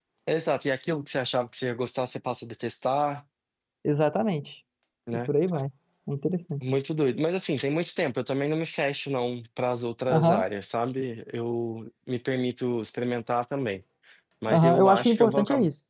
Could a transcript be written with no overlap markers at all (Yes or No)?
No